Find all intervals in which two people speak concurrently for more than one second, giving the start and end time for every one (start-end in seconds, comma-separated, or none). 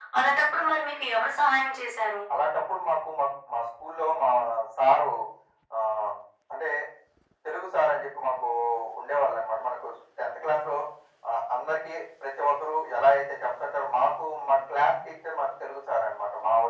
none